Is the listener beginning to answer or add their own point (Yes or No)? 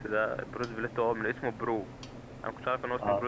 No